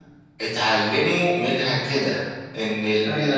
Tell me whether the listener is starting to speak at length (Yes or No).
No